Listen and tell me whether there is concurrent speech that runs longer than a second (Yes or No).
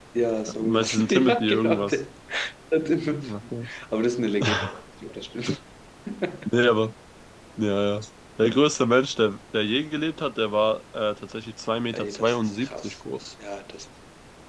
Yes